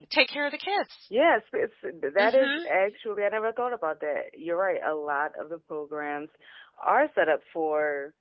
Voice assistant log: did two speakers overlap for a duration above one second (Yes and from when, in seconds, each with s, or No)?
No